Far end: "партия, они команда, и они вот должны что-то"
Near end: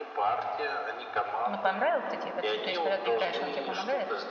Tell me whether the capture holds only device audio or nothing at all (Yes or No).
No